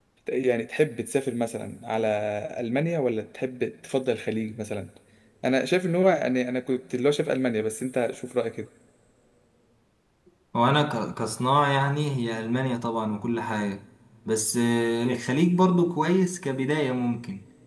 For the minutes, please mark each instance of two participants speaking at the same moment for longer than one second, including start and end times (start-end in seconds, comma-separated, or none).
none